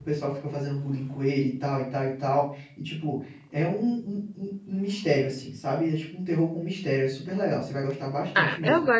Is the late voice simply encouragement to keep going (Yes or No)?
No